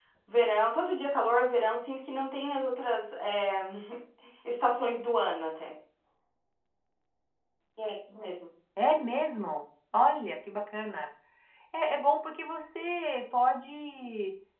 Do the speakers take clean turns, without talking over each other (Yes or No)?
Yes